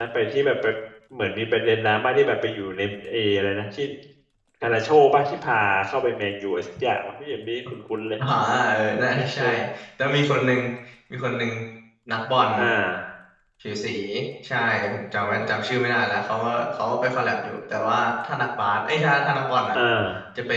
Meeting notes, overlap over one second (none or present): none